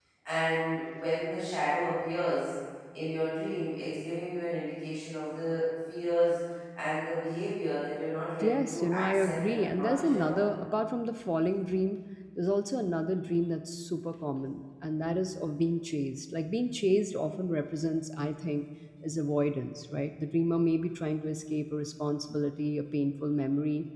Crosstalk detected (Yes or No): Yes